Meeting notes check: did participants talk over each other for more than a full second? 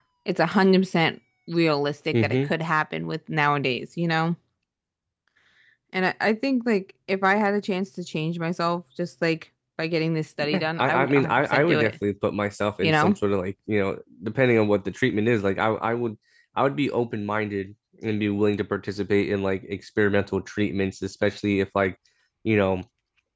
Yes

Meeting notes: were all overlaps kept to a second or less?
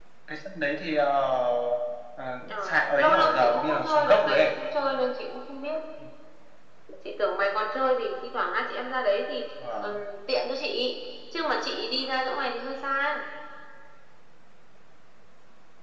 No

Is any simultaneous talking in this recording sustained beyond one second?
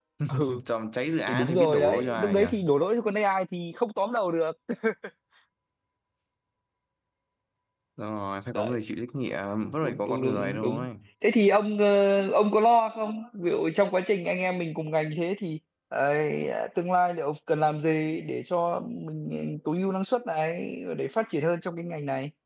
Yes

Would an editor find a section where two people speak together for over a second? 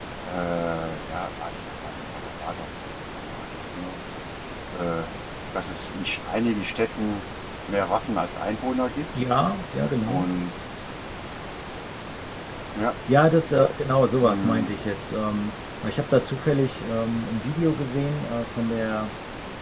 No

